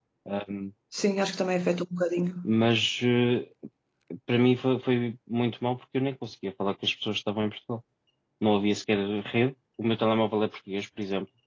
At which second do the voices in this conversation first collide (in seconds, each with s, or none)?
none